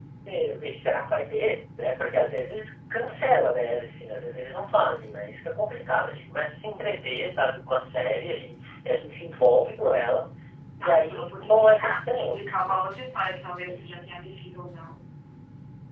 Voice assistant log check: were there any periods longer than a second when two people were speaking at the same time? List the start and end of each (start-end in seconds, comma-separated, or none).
10.8-12.8